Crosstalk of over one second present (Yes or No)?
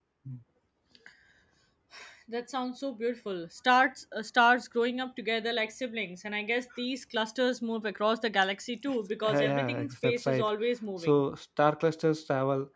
Yes